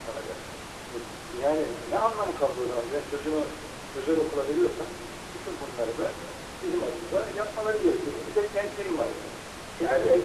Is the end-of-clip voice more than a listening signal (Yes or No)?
No